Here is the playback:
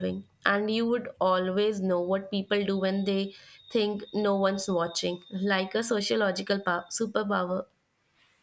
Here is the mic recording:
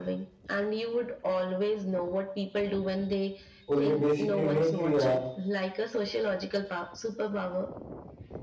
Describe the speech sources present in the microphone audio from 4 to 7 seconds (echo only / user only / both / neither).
both